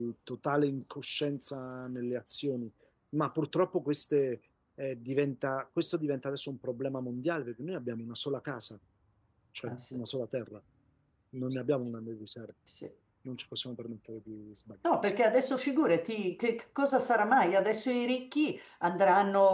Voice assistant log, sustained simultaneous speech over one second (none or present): none